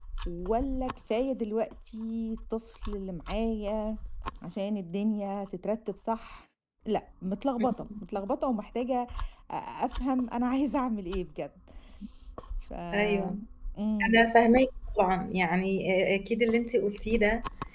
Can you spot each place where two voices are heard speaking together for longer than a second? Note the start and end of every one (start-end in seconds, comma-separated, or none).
none